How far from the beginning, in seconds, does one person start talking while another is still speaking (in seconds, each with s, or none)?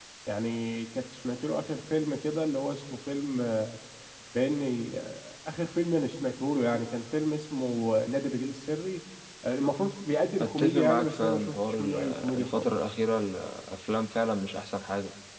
10.4 s